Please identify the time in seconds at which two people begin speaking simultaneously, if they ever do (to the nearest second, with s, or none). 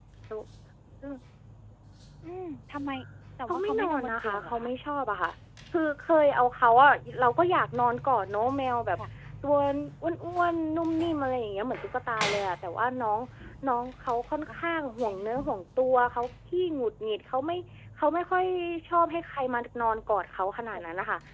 3 s